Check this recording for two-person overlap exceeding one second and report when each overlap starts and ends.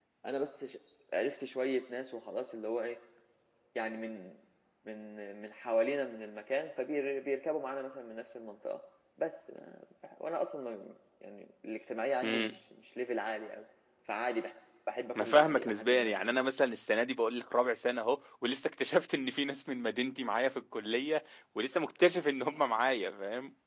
15.2-16.4

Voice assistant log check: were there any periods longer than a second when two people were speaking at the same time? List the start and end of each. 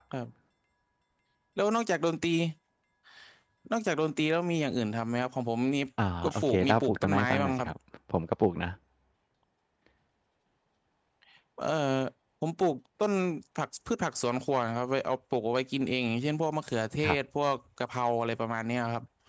6.2-7.7

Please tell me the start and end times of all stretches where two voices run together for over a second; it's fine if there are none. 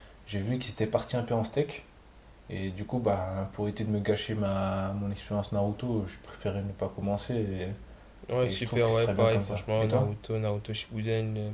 8.4-10.1

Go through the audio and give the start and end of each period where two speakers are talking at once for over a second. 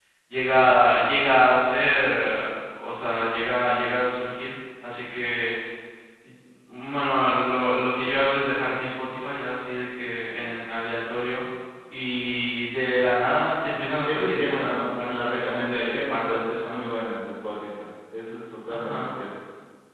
14.0-16.9

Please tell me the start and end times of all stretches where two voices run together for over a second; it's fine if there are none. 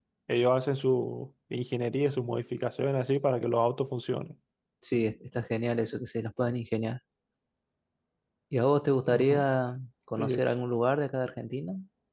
none

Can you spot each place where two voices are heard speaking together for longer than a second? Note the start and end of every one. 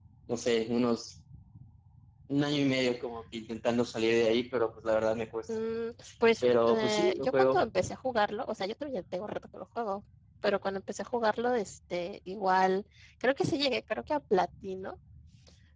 6.4-7.6

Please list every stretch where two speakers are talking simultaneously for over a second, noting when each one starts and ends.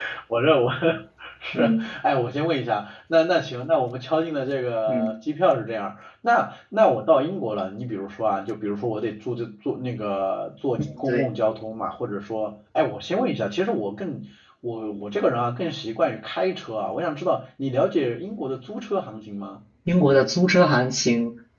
none

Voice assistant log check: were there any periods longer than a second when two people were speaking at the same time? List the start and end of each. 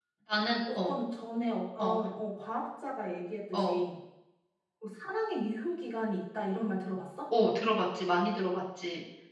none

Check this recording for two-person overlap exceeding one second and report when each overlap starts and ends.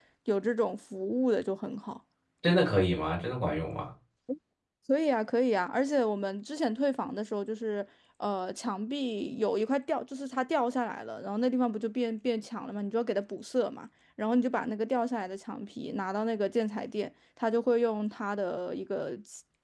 none

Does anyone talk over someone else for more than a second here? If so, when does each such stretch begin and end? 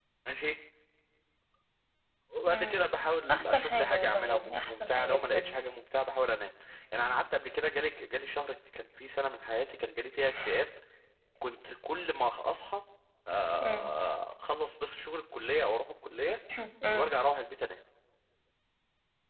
3.3-5.6

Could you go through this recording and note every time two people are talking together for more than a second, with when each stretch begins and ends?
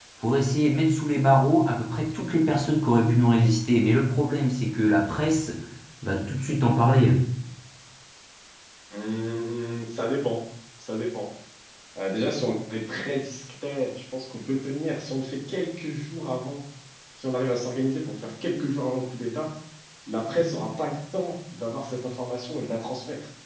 none

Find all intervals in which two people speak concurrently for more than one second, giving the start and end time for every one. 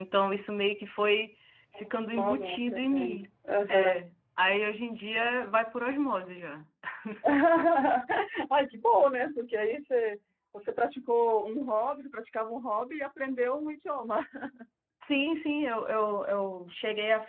1.8-3.2

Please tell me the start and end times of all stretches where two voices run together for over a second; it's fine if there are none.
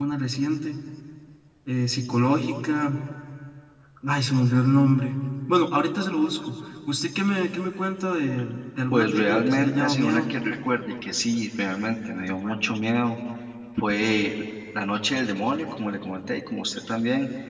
8.9-10.2

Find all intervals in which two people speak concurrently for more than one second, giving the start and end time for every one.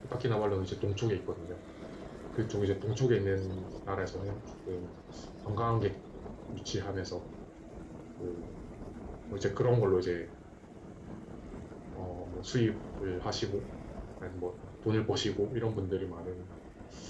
none

